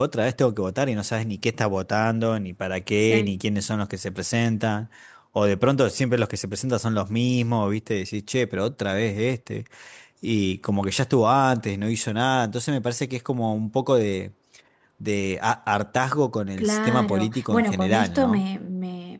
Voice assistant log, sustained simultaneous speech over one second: present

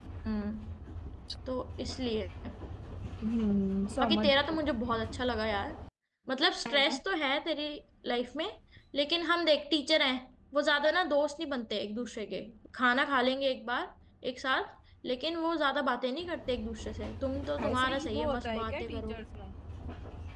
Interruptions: present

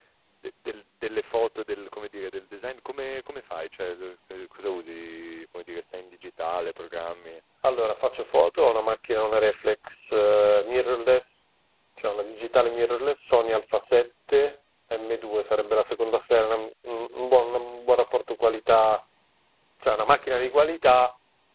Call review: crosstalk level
none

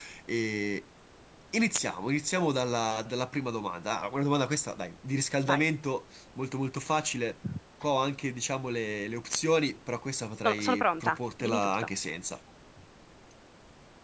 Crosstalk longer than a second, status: present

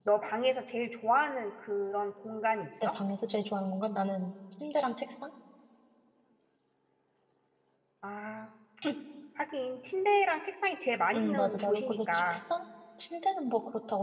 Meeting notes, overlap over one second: present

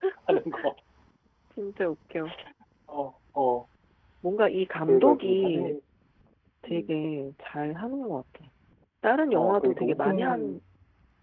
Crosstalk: present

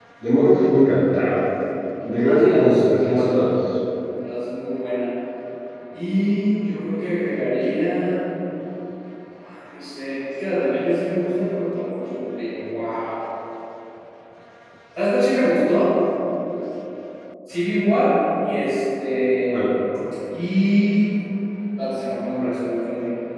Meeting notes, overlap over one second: present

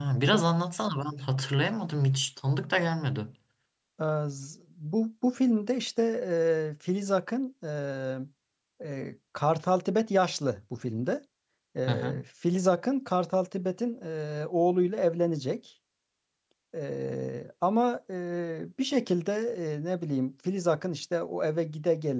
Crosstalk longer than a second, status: none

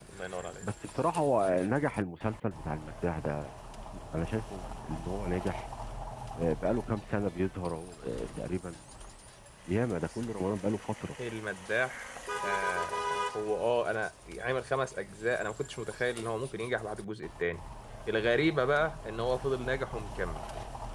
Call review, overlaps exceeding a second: none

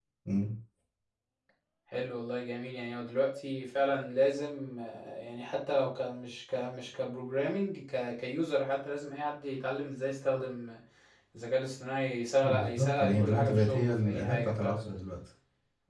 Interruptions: present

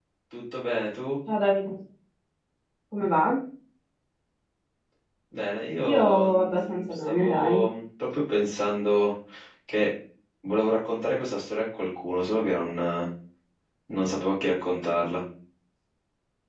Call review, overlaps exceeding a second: present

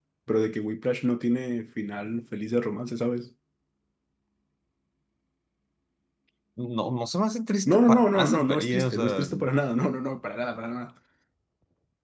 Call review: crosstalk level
present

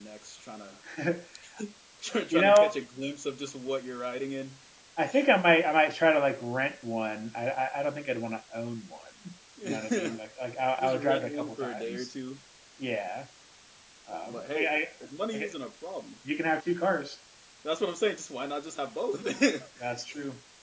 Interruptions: present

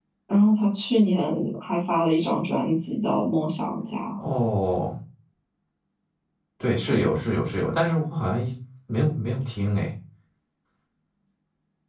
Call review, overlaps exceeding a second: none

